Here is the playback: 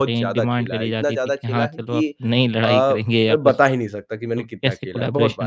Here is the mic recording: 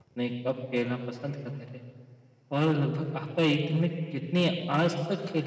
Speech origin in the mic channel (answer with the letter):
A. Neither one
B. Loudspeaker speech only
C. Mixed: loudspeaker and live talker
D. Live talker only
D